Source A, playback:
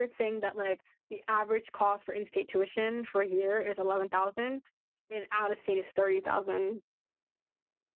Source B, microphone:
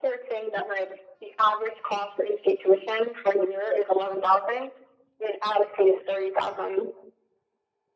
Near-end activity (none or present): none